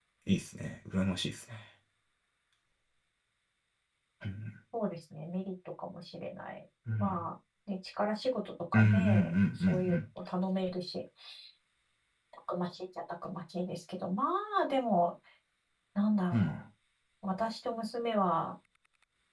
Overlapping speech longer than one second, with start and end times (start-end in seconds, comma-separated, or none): 8.7-10.0